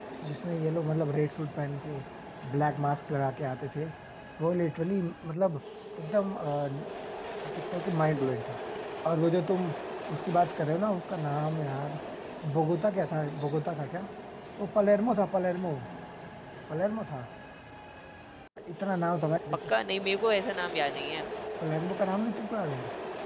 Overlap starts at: none

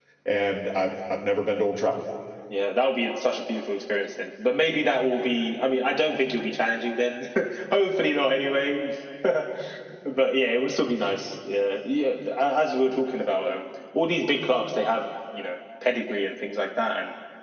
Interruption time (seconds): none

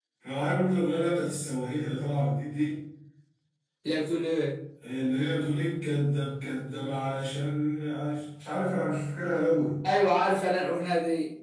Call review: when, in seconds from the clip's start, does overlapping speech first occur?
none

